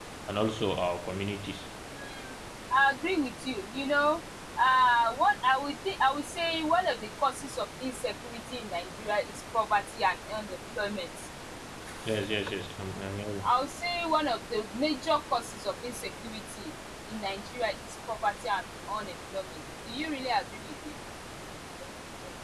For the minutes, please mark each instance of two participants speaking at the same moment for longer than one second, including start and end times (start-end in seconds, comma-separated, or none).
none